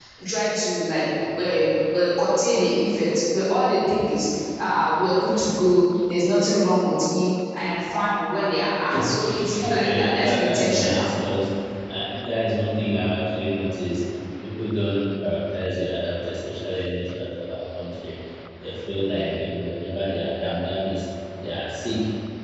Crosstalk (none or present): present